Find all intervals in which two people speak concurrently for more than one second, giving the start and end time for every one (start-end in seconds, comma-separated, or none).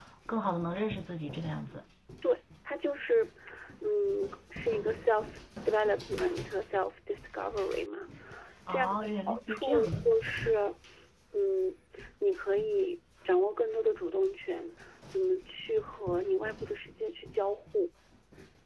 8.7-9.9